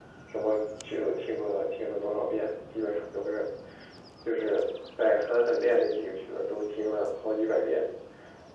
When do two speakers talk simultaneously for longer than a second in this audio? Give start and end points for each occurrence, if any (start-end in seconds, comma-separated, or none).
none